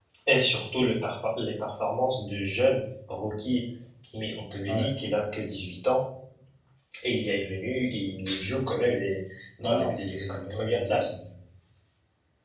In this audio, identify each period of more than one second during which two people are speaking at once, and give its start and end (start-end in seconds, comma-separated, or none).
9.6-11.1